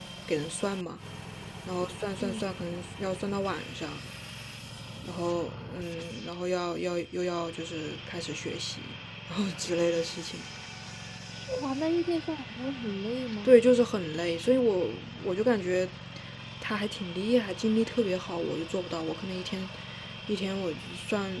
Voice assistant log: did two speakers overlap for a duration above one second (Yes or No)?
No